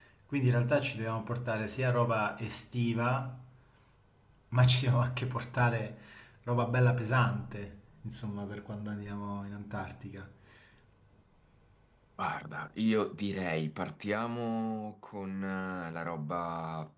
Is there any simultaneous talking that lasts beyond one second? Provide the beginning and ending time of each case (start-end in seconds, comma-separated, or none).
none